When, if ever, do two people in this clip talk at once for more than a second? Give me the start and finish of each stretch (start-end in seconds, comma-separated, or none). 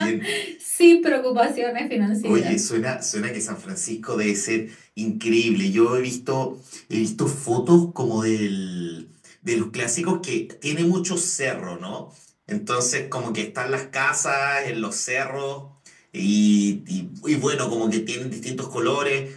none